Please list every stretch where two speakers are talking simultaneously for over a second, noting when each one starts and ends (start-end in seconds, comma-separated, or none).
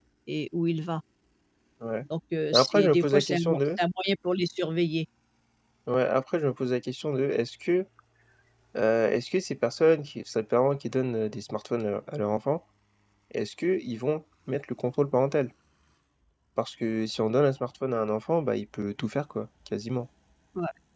2.5-3.8